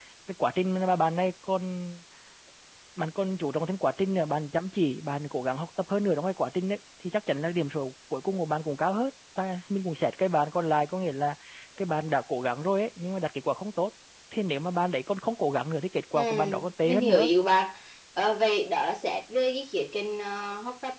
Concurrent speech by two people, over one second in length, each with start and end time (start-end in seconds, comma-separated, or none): none